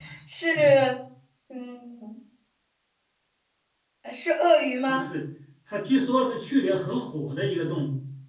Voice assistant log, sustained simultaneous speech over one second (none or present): none